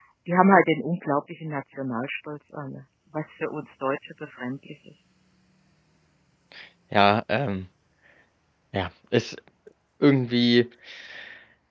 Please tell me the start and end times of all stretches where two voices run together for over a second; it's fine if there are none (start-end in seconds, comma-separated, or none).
none